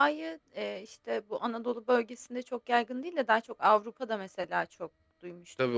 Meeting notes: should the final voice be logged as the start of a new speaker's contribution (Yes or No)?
Yes